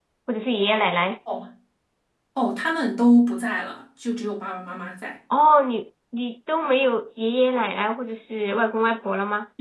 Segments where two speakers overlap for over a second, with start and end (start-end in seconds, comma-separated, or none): none